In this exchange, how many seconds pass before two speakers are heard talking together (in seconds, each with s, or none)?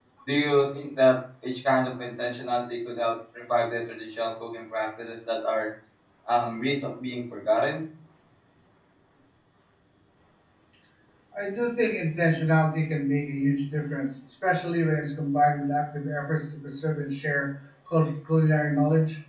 none